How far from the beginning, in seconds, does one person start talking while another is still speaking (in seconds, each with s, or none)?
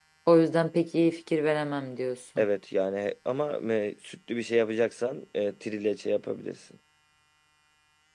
none